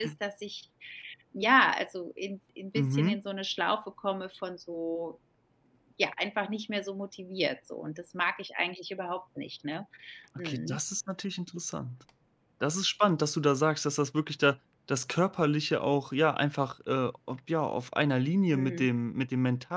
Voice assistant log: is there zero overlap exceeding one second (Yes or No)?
Yes